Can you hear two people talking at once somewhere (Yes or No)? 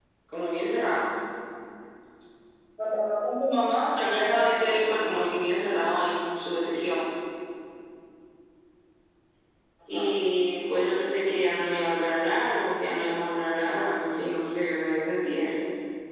Yes